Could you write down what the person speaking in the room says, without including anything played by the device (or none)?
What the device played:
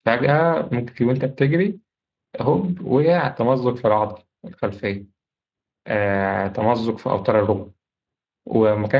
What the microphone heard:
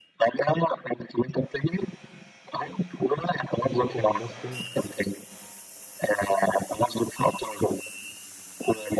ماركو فان باستن